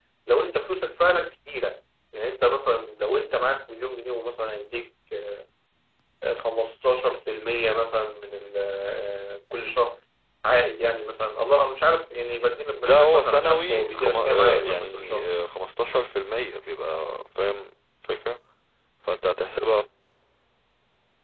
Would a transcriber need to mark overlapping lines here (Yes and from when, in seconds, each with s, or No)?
Yes, from 12.8 s